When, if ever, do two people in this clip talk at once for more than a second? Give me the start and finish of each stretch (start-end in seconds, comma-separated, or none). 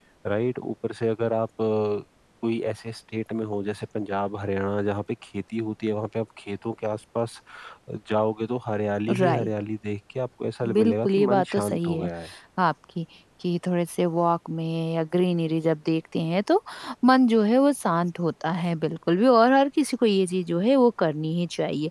10.7-12.1